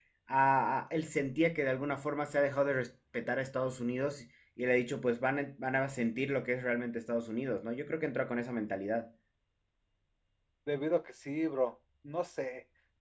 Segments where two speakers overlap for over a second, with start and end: none

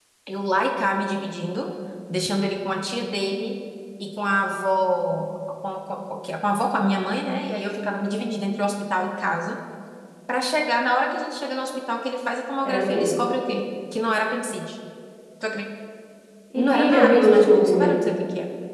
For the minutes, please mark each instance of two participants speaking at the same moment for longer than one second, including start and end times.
16.6-17.9

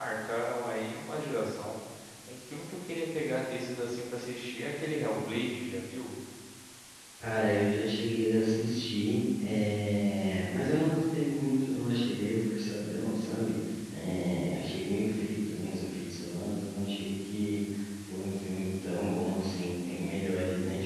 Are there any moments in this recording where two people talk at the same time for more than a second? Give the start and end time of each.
none

